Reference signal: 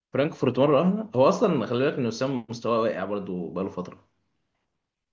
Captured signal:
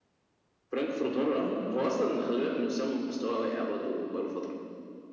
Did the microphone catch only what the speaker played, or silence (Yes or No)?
Yes